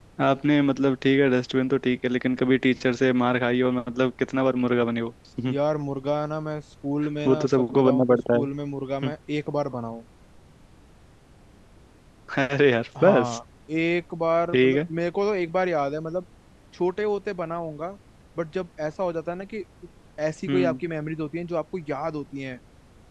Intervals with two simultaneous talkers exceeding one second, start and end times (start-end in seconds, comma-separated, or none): 7.2-8.5